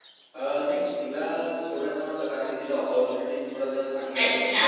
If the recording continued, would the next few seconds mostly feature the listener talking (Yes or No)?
Yes